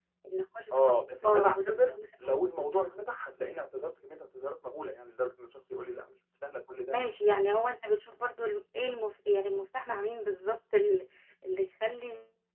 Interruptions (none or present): present